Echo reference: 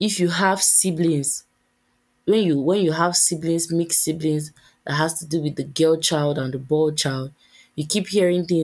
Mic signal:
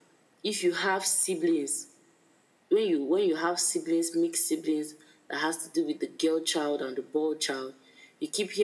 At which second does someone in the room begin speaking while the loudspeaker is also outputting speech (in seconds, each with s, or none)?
none